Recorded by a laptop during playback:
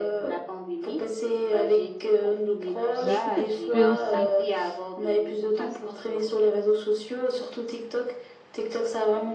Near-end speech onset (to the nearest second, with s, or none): 3 s